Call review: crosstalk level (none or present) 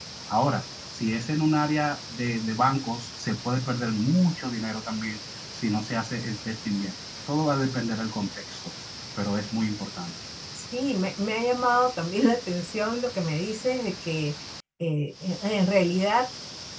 none